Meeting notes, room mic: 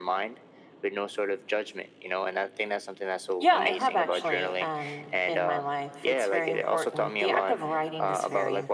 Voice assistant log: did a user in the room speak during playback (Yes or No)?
Yes